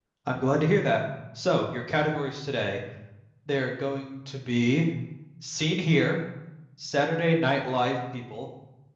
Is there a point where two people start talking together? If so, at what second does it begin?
none

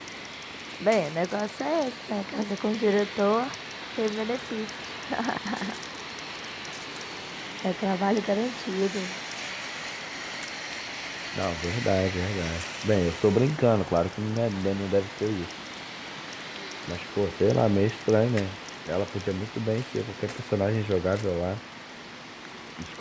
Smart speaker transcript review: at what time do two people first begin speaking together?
none

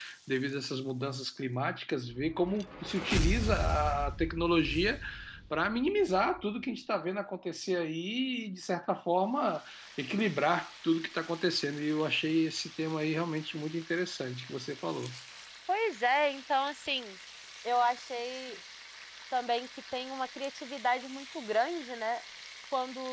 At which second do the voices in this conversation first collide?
none

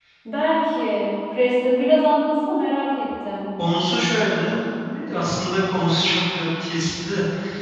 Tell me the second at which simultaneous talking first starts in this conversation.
none

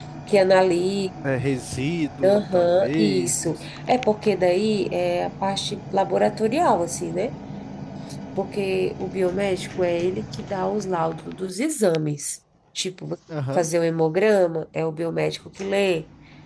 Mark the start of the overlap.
2.2 s

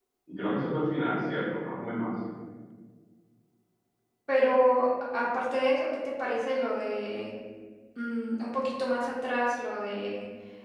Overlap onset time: none

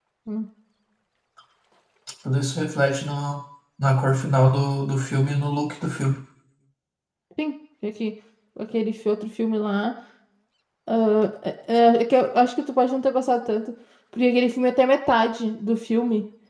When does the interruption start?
none

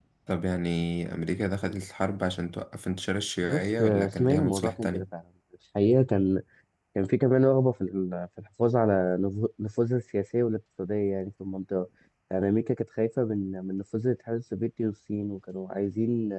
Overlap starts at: 3.4 s

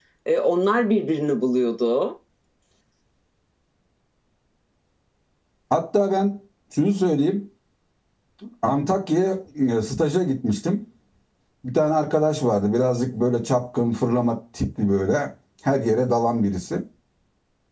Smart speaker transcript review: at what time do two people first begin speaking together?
none

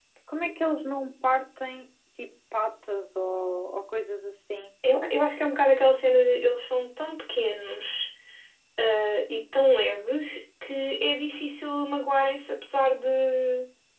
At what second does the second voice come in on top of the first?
none

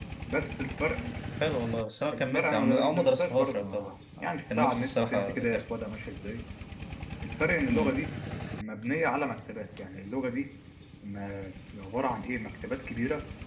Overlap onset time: 2.1 s

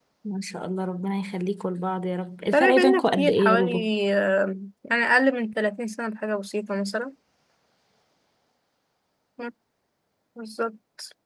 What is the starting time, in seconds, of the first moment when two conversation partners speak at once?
2.5 s

